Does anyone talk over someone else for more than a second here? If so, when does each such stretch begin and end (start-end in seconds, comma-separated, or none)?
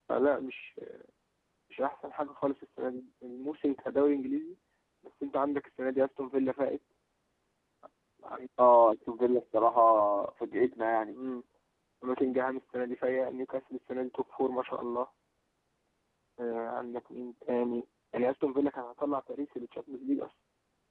none